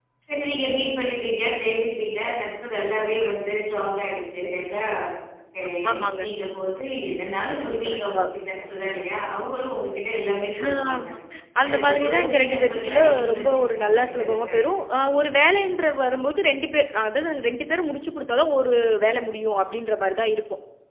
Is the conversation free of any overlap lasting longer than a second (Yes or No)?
No